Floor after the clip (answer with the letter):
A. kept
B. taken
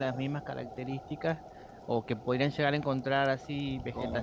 A